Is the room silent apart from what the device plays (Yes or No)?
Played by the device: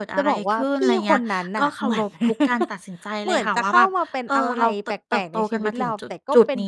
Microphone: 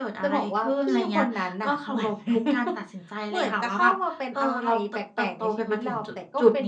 Yes